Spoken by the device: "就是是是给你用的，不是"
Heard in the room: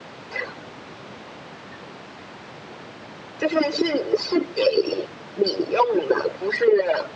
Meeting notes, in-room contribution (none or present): none